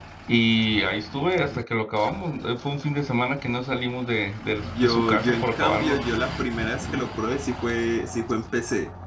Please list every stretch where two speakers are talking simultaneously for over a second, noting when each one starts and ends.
4.8-6.0

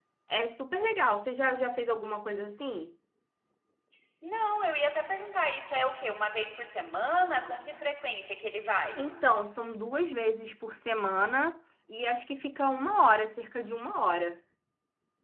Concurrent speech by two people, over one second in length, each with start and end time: none

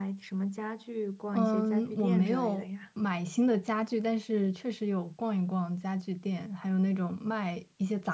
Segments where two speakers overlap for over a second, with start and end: 1.3-2.6

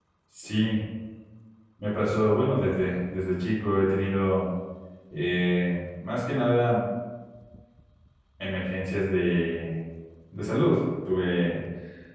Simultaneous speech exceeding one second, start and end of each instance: none

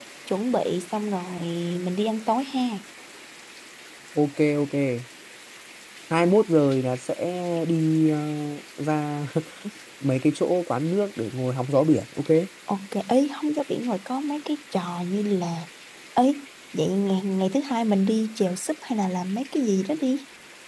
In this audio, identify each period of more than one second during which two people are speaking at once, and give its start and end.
none

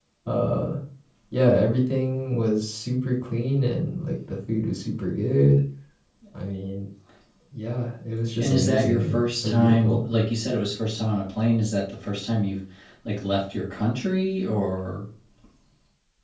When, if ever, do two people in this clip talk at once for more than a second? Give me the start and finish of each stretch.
8.4-10.1

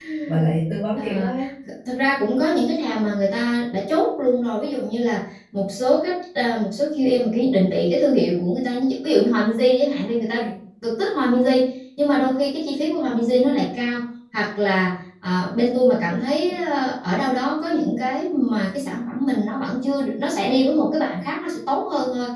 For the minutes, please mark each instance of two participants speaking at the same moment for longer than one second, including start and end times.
none

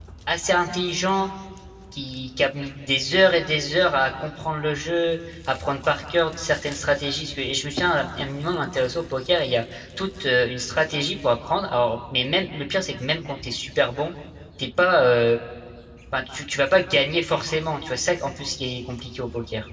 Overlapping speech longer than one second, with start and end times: none

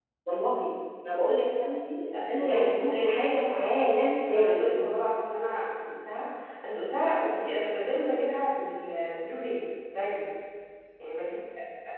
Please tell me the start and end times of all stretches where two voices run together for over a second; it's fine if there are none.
2.1-3.8

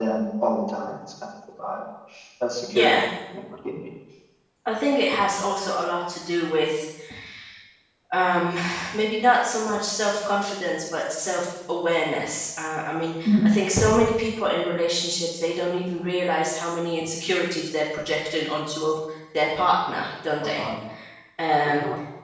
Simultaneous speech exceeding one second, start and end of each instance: none

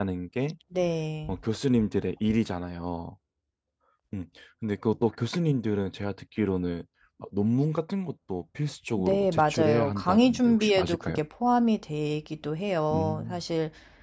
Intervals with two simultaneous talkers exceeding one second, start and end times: 9.0-11.2

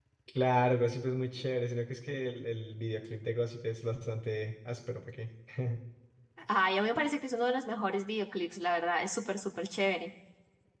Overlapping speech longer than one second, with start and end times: none

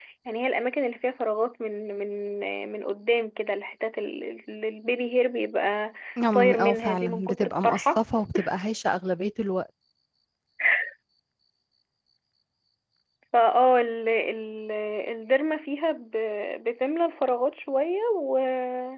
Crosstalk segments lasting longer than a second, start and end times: 6.3-8.0

